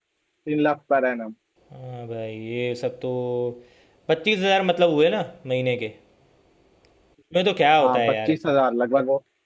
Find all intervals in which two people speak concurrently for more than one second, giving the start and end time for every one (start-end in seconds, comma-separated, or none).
none